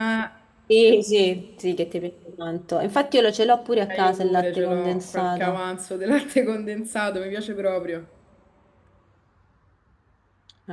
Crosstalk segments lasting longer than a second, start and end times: 3.9-5.6

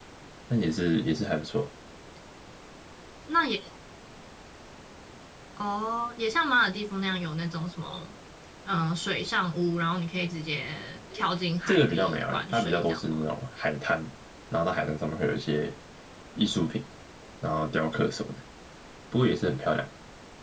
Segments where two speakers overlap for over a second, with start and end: 11.7-13.2

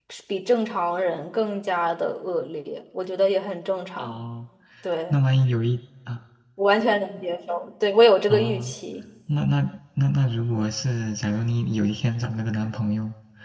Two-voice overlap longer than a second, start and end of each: none

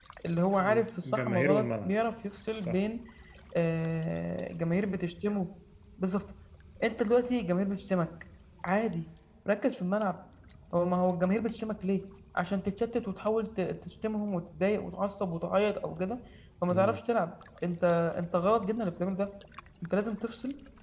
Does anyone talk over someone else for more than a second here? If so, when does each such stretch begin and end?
0.6-1.9

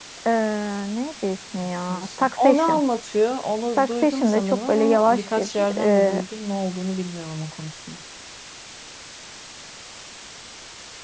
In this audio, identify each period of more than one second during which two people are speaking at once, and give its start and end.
1.6-2.8, 3.8-6.2

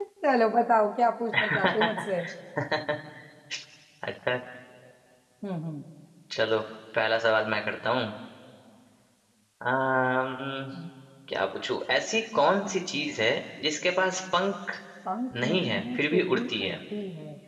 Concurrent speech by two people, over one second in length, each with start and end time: 15.4-16.8

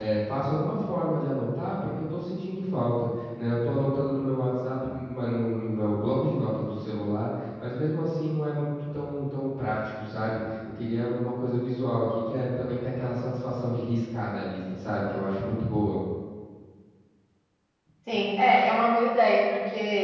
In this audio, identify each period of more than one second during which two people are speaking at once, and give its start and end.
none

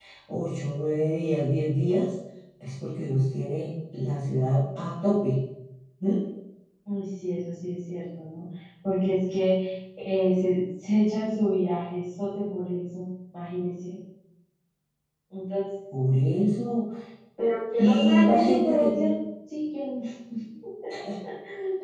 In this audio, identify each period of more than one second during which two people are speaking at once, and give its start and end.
17.8-19.1

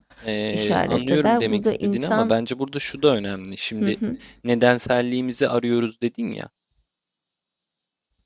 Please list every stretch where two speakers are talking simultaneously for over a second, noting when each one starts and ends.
0.5-2.3

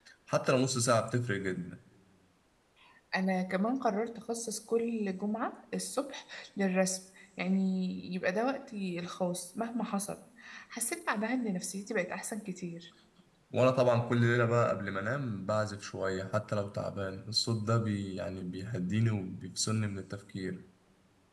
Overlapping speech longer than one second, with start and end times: none

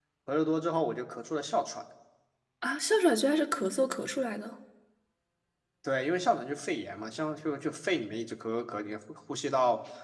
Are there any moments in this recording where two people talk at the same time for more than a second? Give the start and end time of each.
none

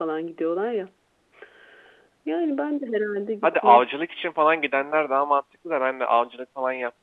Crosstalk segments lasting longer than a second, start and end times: none

